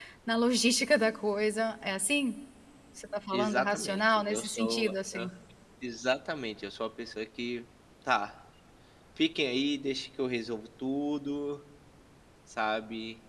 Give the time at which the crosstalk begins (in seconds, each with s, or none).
3.3 s